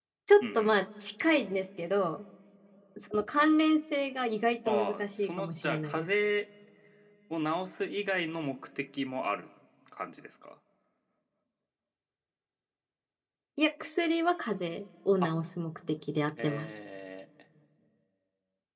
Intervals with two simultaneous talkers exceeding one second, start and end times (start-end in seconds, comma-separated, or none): 4.7-6.1